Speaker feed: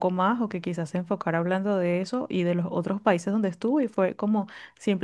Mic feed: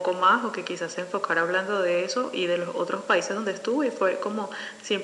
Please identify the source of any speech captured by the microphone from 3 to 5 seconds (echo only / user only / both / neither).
echo only